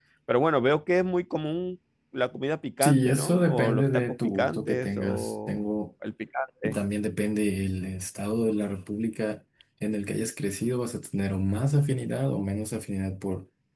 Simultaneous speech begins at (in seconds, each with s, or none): 2.8 s